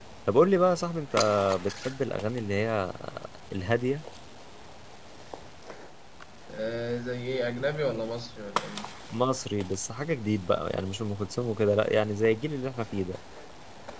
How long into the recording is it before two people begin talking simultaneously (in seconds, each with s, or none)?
none